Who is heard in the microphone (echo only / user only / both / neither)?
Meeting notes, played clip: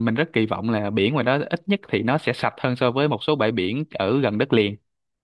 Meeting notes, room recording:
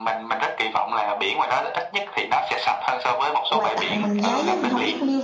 both